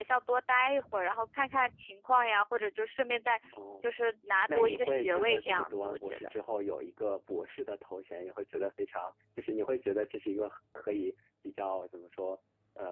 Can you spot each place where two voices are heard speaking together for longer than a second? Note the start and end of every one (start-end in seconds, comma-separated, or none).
4.5-6.3